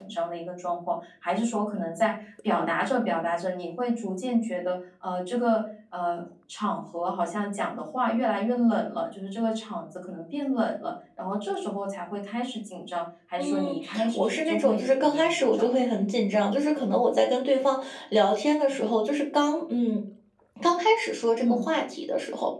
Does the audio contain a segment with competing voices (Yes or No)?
Yes